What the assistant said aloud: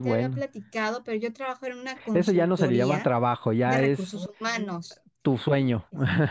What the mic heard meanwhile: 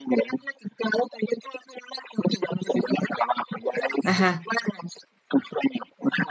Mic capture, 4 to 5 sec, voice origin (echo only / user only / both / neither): both